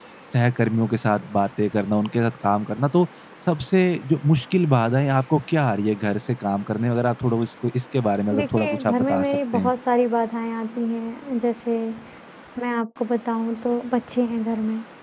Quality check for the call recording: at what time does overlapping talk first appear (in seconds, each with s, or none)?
8.3 s